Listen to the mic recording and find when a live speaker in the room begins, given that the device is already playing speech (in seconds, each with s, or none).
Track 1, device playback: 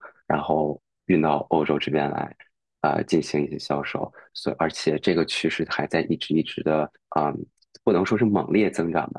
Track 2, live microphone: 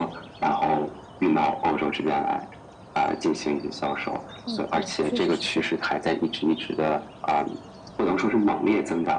4.4 s